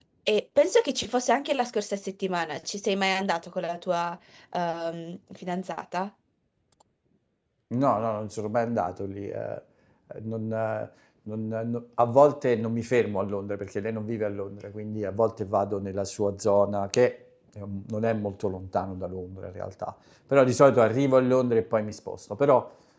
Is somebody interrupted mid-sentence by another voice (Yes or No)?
No